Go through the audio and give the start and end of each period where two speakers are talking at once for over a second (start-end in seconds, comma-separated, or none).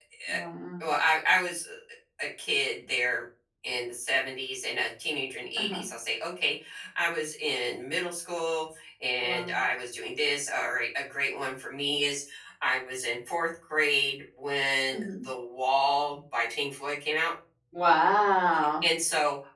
none